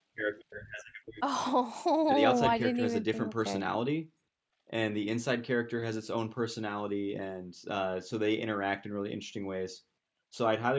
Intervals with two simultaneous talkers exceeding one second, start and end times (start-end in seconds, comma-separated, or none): 2.1-3.6